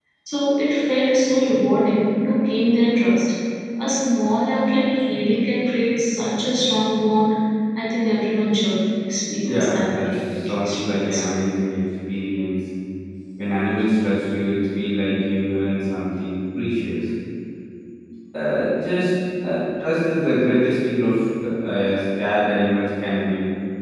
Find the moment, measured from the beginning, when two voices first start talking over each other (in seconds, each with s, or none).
9.4 s